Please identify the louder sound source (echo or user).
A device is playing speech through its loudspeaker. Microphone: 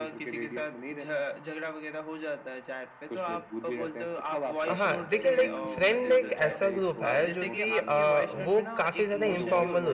user